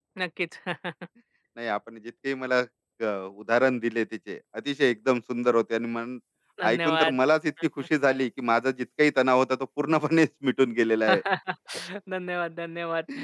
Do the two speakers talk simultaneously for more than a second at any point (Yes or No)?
No